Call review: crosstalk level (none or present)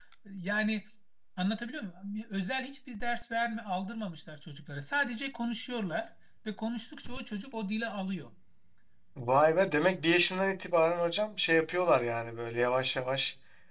none